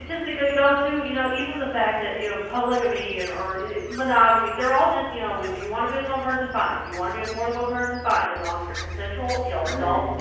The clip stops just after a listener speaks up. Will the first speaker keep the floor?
Yes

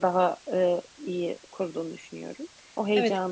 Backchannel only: No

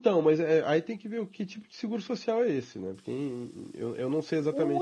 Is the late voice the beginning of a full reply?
Yes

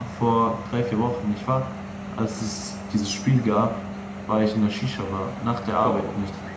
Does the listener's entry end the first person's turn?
No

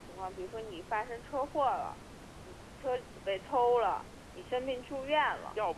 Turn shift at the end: Yes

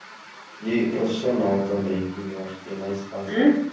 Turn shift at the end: Yes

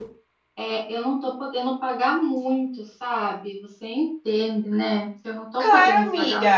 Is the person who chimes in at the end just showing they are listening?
No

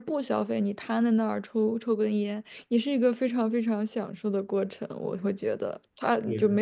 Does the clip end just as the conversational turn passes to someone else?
No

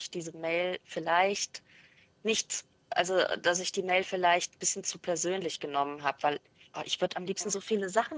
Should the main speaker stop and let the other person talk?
No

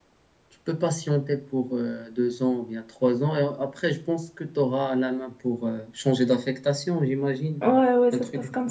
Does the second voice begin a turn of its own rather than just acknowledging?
Yes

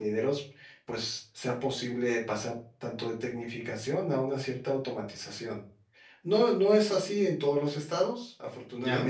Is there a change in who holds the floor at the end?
No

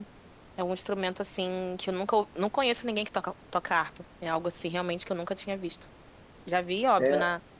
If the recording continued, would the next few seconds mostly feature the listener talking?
No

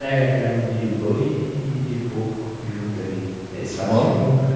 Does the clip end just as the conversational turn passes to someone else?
No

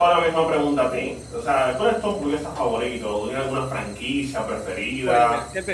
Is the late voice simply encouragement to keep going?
No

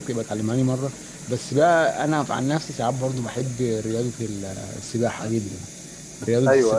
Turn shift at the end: No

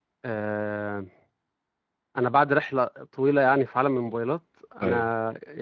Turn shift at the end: No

